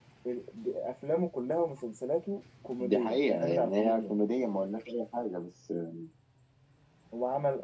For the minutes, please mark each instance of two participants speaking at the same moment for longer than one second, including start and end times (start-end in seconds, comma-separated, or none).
2.8-4.1